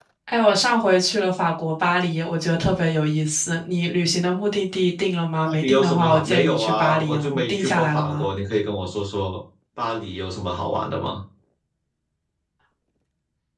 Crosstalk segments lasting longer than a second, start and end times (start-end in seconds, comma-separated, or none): 5.4-8.2